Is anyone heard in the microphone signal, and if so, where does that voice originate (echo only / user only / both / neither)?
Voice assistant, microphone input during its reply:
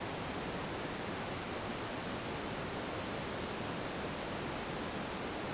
neither